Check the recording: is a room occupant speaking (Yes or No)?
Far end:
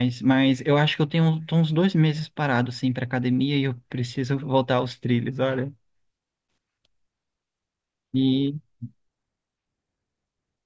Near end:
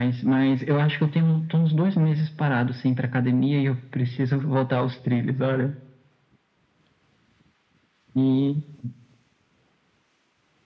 No